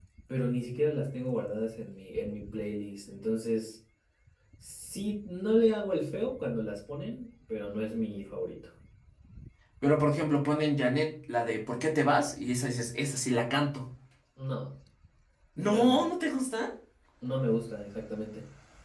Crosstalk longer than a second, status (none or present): none